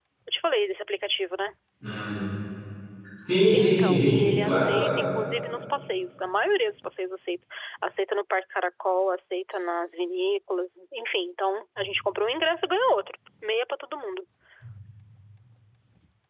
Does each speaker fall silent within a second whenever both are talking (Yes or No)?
No